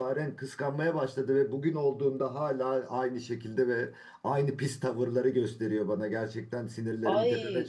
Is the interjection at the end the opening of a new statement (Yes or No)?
Yes